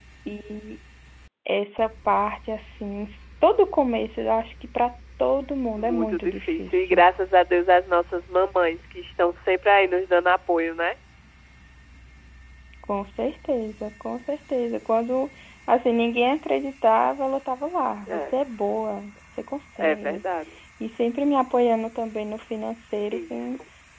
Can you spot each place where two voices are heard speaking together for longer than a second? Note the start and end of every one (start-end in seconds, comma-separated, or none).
5.8-7.0